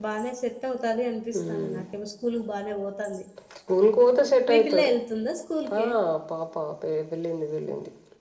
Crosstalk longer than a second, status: none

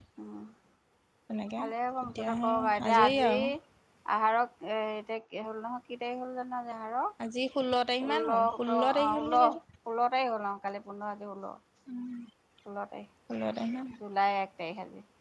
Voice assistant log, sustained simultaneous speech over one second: present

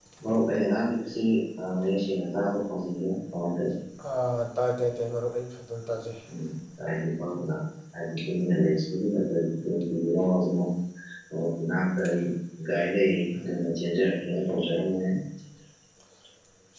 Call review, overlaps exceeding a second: none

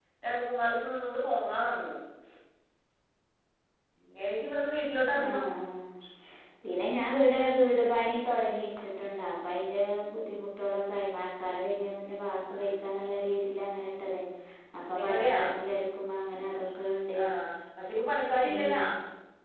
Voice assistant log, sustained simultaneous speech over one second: none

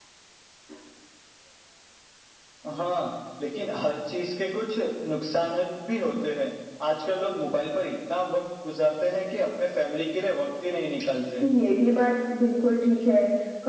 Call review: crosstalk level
none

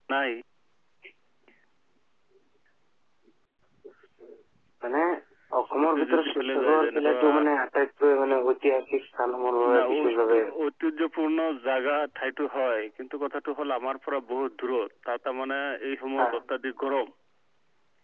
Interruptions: present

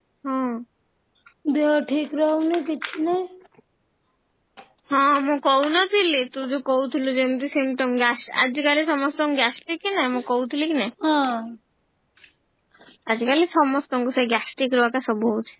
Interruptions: none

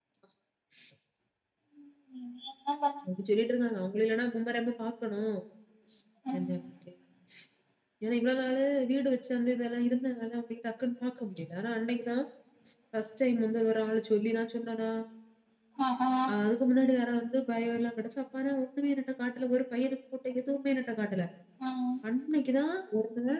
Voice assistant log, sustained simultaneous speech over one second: none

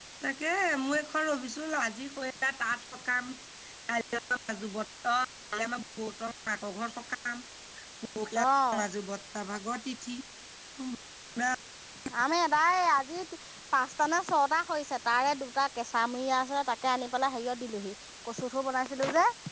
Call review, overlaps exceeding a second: none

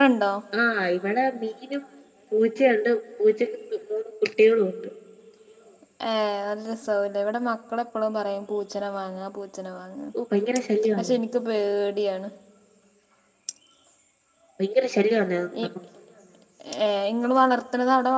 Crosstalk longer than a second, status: none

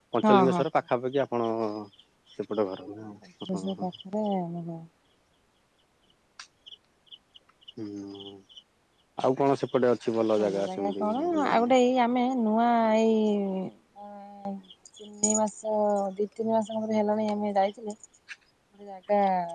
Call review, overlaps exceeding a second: present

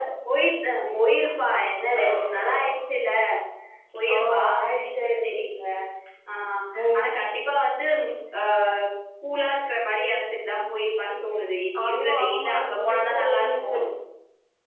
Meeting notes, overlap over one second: present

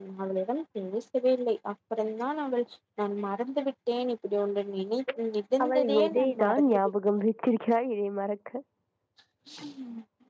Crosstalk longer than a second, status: present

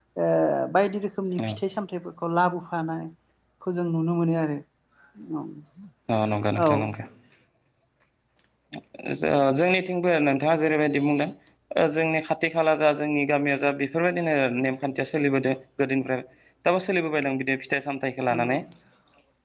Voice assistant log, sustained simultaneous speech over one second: none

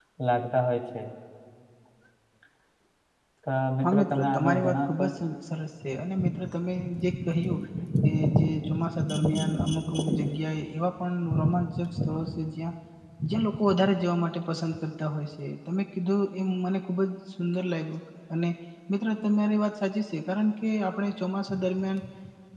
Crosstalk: present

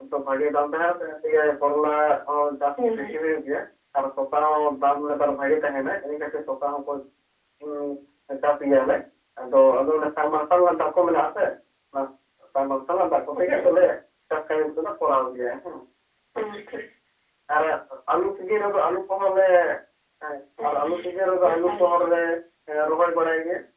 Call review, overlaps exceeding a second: none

